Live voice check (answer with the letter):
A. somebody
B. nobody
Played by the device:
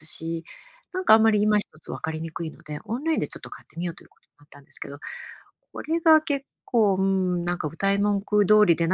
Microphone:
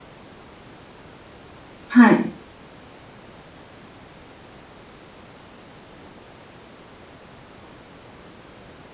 A